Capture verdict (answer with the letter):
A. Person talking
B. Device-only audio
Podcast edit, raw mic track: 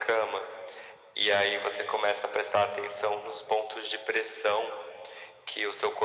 B